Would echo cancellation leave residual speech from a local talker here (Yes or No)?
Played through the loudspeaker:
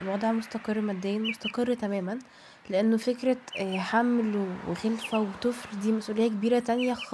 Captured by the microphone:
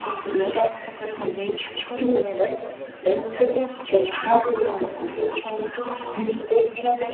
Yes